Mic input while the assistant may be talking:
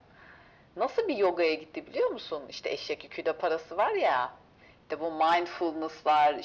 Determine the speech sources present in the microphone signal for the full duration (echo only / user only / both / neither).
echo only